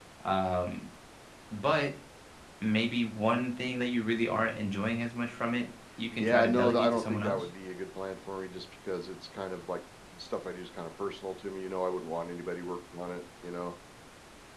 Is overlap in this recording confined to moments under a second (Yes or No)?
No